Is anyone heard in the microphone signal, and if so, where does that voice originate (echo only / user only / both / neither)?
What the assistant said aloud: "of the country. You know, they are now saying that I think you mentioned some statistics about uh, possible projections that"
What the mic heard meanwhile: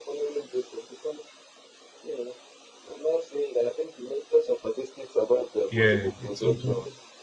both